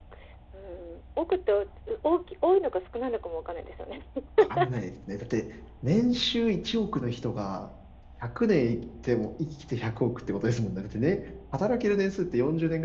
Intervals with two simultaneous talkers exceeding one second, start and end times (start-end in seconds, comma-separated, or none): none